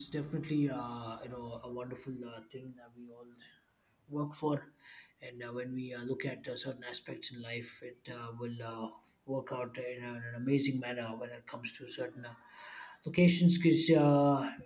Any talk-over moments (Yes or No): No